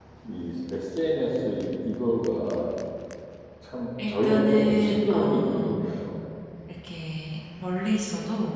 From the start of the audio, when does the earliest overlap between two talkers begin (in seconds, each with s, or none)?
4.1 s